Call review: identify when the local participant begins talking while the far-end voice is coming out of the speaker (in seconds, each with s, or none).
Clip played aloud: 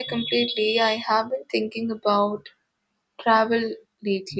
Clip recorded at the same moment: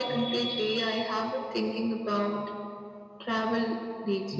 none